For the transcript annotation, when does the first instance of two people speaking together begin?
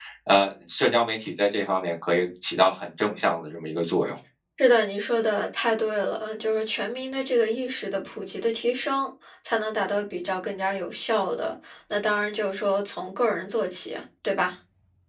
none

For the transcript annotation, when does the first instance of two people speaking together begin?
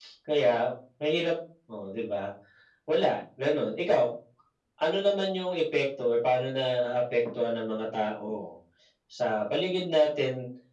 none

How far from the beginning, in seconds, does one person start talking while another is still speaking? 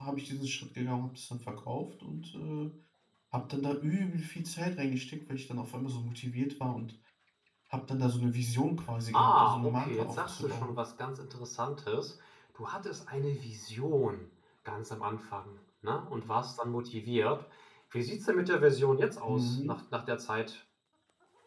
9.1 s

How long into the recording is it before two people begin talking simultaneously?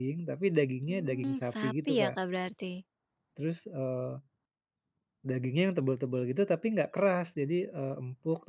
0.9 s

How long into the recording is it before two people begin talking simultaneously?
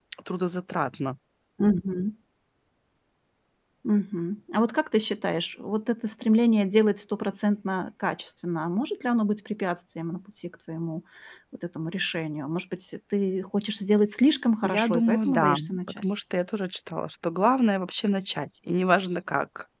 14.6 s

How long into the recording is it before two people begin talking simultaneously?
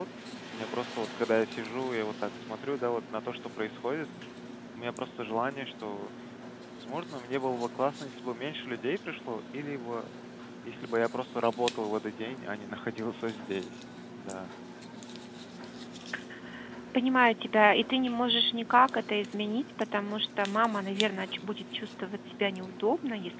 none

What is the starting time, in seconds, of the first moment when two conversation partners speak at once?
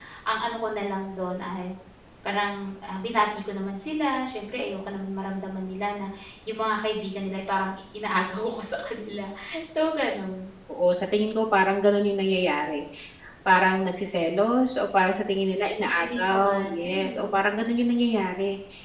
16.0 s

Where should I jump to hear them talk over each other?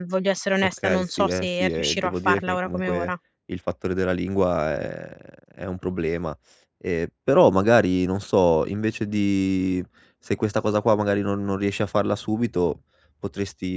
0.6 s

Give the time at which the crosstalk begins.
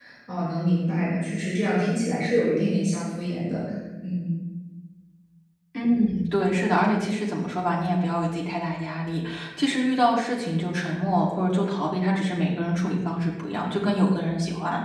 none

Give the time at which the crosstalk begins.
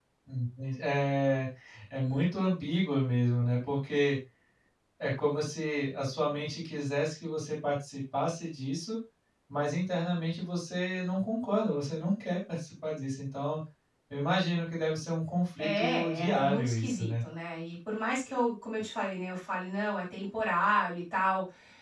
15.6 s

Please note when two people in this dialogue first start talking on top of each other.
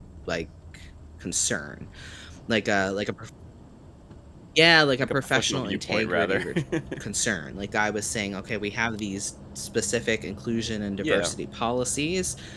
5.0 s

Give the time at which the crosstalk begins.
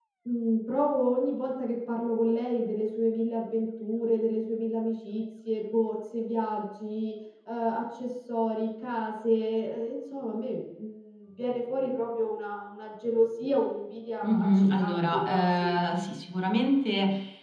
14.2 s

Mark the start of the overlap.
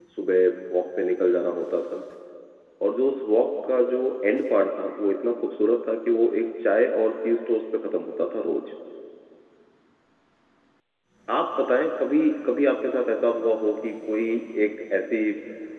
none

